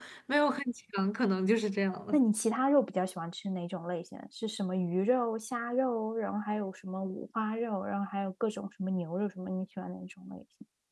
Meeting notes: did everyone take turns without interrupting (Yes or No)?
Yes